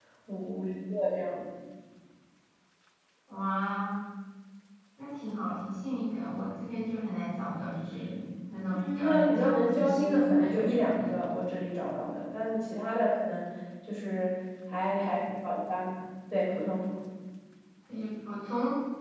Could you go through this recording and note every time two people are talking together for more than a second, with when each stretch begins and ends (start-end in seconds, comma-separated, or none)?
8.7-11.2